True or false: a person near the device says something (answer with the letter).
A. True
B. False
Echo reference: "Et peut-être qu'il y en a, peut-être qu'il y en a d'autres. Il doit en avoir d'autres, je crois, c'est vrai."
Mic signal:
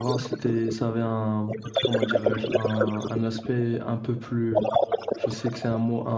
A